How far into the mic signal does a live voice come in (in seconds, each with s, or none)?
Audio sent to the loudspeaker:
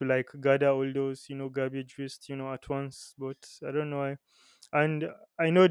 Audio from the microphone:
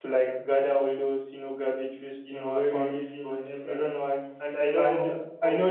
2.2 s